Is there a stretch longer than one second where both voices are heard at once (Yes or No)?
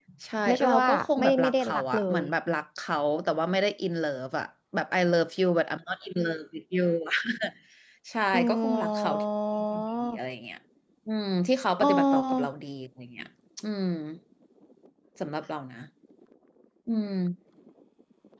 Yes